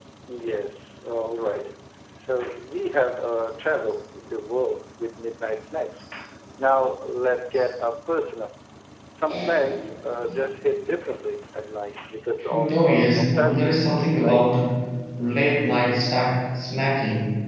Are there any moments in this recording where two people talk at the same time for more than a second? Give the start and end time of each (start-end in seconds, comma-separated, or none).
12.5-13.8